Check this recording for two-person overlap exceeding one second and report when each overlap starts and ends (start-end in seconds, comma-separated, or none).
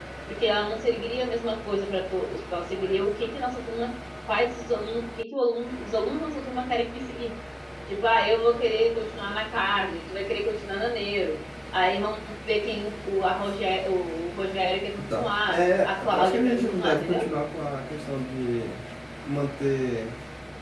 15.1-17.3